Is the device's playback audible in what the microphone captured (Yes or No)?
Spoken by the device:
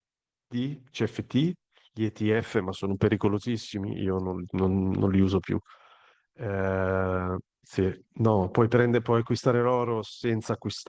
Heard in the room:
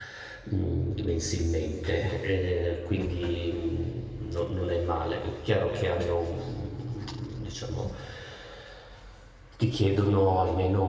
No